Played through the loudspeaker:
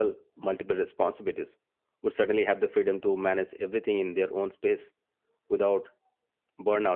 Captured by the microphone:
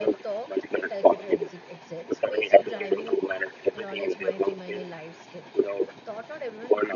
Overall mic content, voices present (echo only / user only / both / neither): both